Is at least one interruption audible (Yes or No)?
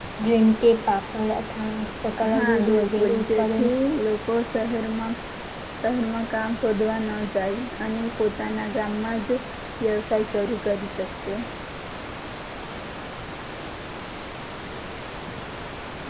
Yes